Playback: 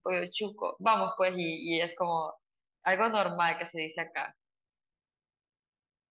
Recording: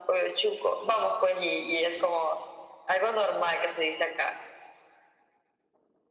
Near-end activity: none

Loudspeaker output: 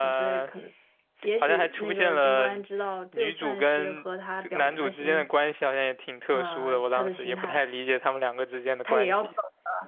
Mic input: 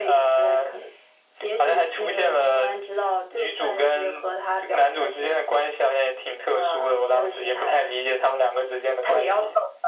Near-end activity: none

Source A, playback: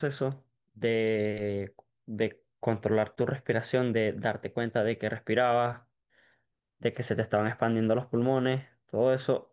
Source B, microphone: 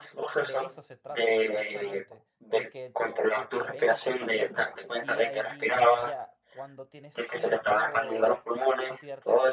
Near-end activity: present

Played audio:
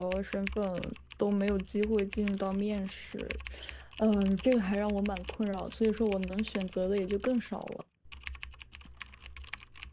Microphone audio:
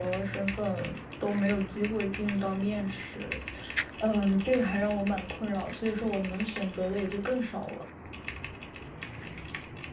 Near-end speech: none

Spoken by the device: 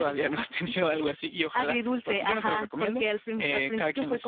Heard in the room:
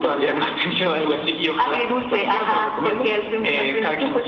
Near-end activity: none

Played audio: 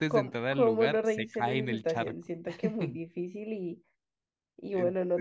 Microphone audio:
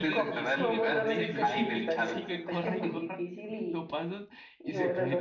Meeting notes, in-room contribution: present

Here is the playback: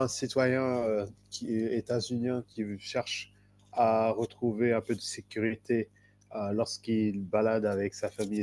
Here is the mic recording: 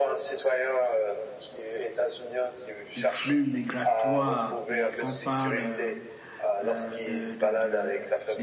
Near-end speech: present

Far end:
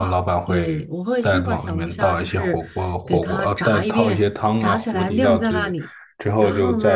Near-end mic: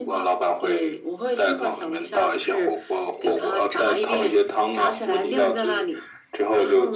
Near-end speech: none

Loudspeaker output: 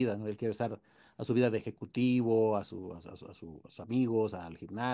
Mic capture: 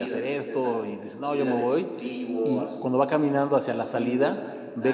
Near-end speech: present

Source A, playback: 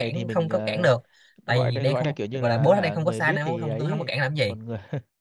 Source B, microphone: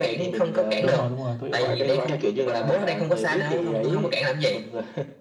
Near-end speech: present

